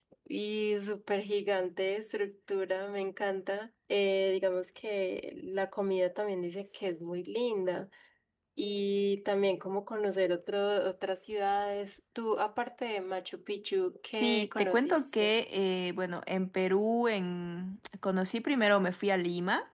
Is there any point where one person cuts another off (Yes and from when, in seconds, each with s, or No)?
Yes, from 14.1 s